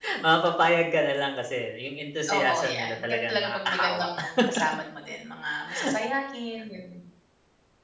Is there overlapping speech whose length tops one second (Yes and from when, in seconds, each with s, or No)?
Yes, from 2.3 s